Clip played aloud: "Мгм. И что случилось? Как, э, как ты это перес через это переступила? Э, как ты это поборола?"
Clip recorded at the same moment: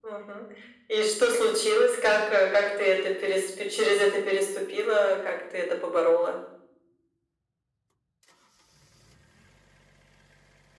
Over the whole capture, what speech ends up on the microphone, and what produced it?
echo only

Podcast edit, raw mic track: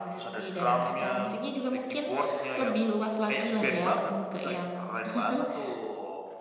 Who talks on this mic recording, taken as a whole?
echo only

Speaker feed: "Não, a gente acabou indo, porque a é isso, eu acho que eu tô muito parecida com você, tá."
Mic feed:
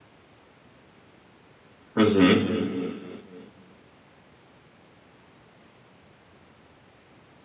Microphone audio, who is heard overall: user only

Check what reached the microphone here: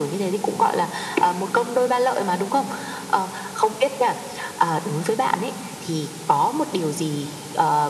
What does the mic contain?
echo only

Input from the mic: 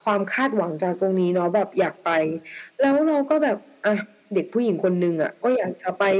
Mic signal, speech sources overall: echo only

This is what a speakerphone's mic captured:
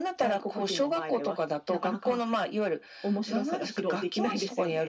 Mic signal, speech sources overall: echo only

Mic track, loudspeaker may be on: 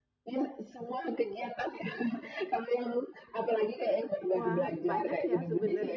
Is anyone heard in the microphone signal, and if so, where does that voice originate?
both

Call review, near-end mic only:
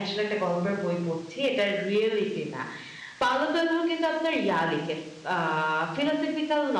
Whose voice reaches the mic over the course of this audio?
echo only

